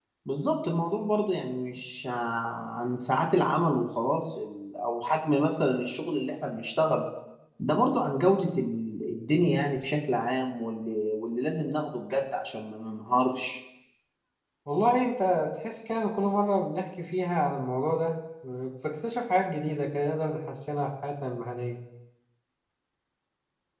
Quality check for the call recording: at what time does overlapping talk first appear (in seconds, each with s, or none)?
none